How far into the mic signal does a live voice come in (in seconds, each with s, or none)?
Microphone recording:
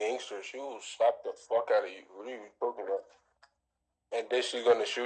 none